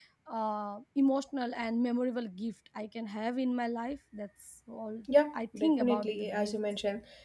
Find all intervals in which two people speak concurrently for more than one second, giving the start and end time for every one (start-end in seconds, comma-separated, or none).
5.3-6.5